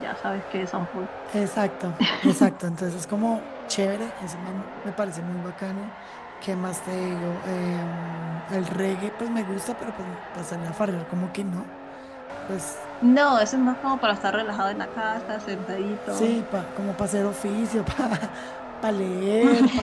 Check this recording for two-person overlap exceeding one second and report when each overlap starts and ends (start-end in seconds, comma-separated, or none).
none